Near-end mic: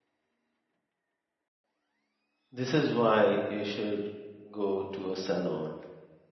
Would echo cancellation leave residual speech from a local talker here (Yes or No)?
Yes